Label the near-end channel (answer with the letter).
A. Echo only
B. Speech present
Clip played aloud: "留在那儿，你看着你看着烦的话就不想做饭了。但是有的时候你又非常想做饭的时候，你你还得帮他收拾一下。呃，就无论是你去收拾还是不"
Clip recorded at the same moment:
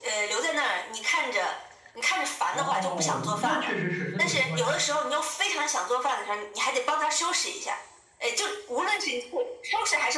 B